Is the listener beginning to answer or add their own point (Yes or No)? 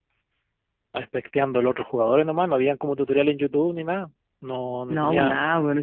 Yes